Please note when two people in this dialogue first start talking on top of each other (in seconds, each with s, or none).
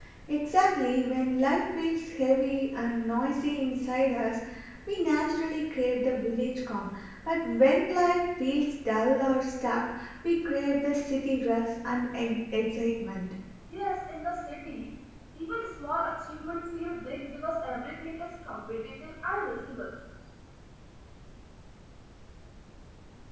none